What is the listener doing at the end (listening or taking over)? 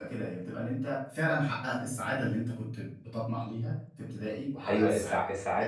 taking over